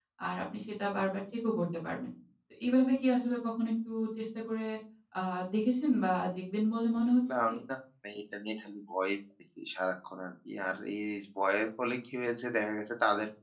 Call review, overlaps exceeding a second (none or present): none